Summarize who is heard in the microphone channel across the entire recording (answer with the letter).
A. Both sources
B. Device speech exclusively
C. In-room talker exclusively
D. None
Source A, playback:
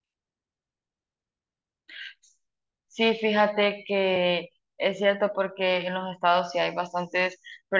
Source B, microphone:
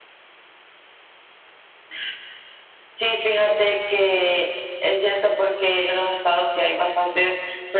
B